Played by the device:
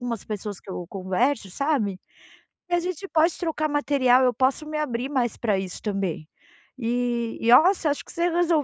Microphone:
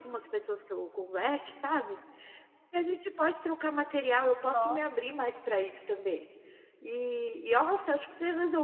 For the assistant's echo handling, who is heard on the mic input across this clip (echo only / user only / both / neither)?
both